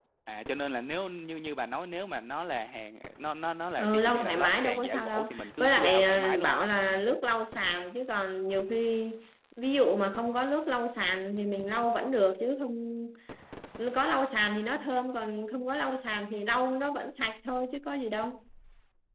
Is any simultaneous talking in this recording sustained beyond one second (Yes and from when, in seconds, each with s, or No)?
Yes, from 3.8 s